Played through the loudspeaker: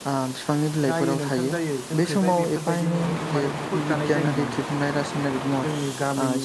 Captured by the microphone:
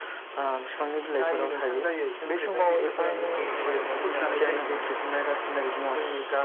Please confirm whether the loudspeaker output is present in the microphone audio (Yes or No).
Yes